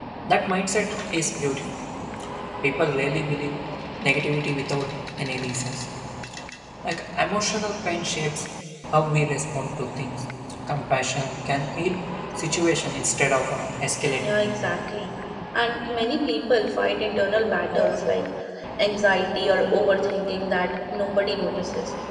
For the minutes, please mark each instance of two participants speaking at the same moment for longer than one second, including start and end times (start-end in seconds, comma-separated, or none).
none